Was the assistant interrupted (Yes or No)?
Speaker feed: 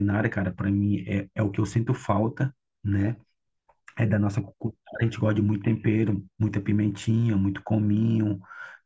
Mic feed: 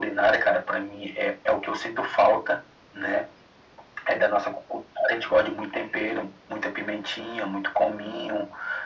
No